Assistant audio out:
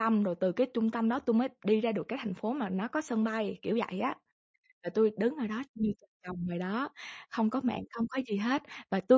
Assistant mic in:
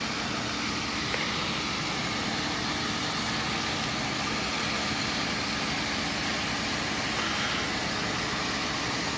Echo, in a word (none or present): none